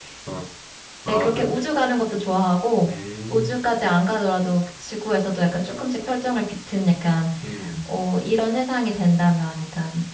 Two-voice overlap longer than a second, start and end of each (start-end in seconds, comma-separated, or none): none